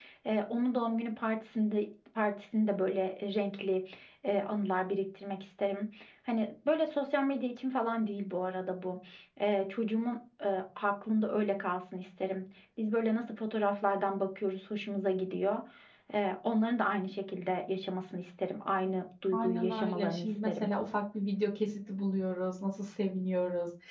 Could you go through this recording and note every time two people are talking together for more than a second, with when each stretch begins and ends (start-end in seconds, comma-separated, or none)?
19.3-20.7